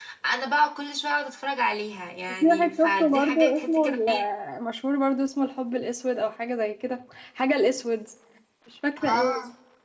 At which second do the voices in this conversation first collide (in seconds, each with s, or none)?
2.4 s